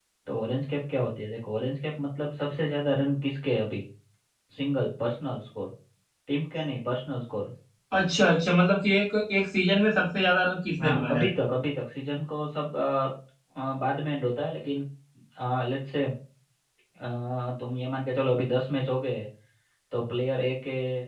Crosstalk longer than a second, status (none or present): none